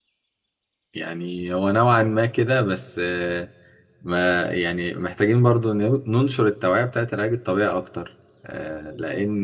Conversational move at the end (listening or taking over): taking over